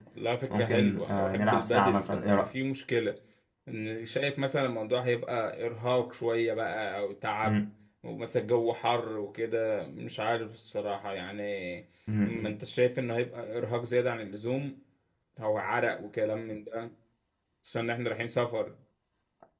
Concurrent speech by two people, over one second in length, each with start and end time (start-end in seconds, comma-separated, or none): 0.5-2.5